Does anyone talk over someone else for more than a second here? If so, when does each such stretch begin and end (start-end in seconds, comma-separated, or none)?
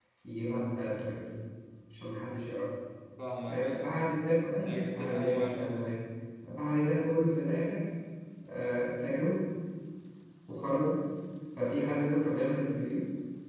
4.6-5.9